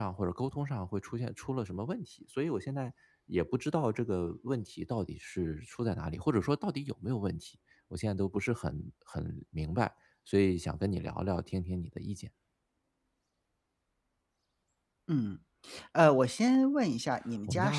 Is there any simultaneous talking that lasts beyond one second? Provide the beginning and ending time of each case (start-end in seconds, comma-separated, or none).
none